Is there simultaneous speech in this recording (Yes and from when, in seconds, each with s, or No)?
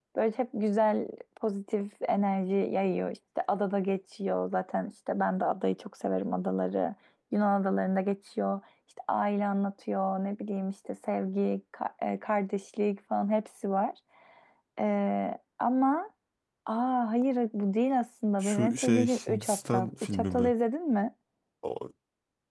Yes, from 18.4 s